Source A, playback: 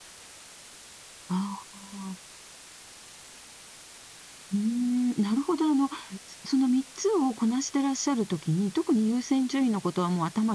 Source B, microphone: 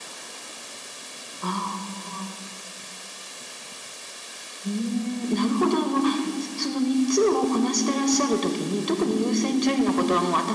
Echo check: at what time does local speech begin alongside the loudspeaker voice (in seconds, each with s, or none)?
none